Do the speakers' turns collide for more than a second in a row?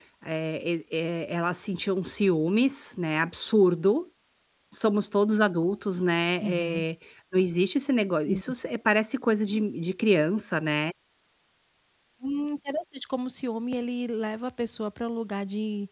No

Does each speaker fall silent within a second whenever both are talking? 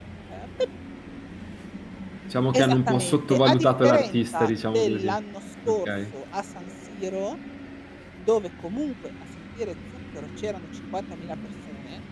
No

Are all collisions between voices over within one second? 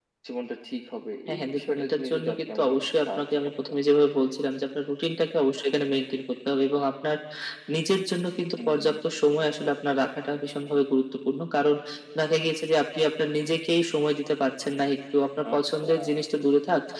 No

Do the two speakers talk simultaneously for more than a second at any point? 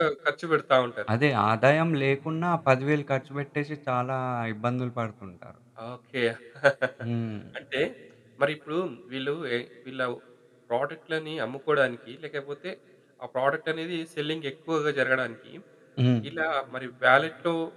No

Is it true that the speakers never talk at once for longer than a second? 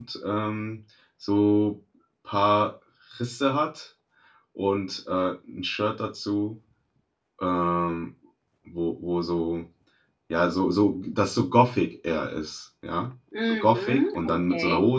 No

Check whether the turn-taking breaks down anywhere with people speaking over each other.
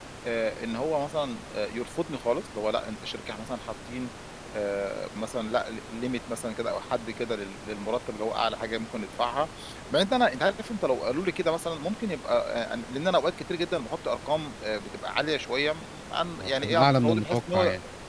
Yes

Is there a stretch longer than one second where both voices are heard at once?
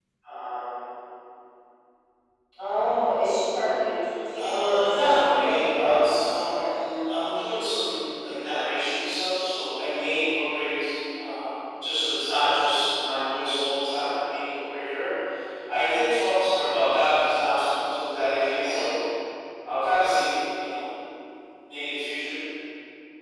Yes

